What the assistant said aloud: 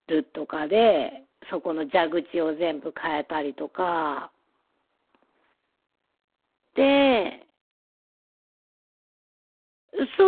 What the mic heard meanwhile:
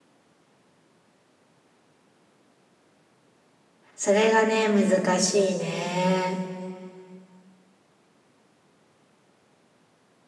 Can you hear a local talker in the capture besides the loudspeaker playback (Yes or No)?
Yes